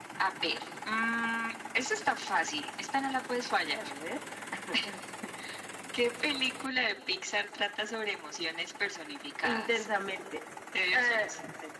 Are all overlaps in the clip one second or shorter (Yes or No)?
Yes